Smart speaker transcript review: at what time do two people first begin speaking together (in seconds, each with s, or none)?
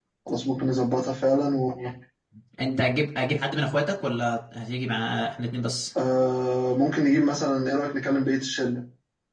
none